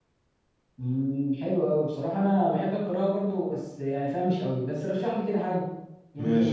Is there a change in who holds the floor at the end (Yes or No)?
Yes